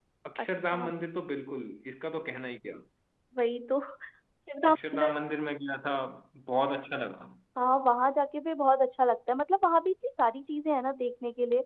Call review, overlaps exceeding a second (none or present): none